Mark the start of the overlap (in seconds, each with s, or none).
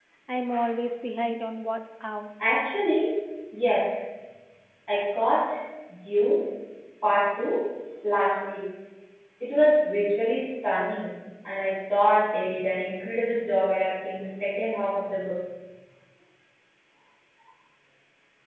none